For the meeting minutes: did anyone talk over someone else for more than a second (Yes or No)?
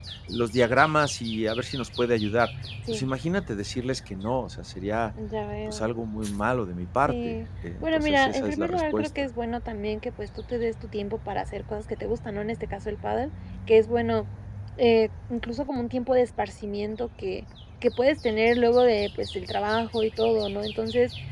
Yes